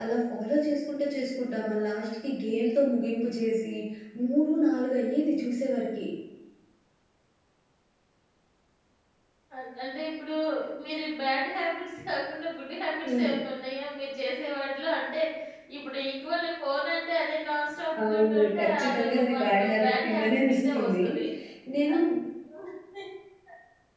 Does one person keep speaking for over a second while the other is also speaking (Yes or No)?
Yes